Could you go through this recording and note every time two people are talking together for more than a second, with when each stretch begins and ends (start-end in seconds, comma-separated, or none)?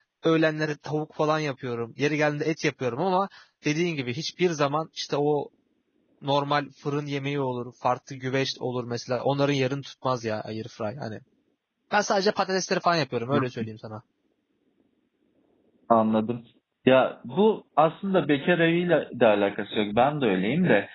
none